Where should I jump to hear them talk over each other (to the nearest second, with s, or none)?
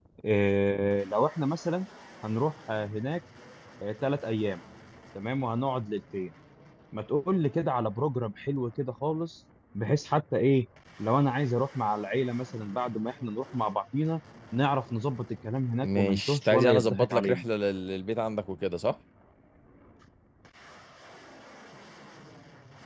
16 s